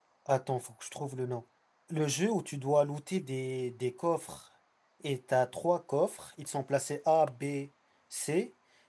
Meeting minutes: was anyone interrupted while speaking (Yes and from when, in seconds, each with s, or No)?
No